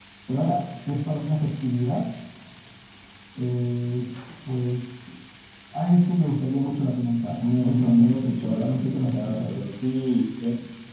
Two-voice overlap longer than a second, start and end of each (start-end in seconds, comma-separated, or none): 7.4-9.6